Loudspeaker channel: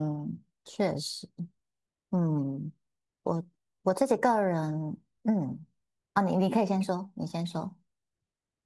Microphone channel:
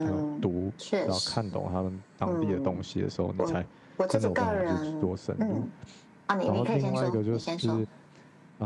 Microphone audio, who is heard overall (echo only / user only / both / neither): both